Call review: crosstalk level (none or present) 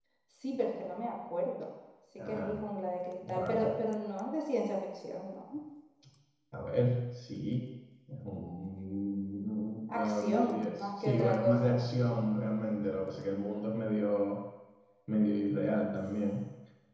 present